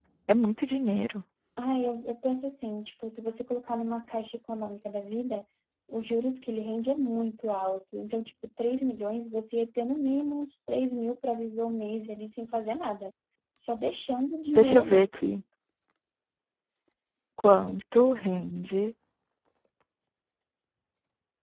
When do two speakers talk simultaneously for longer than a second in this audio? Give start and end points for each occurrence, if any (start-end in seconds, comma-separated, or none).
none